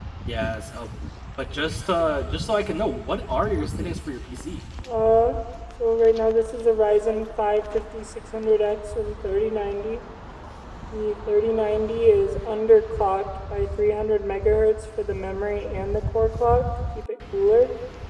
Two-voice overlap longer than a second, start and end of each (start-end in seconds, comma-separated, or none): none